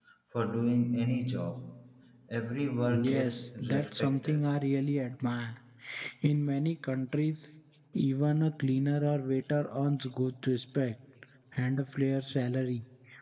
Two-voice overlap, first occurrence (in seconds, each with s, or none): 3.0 s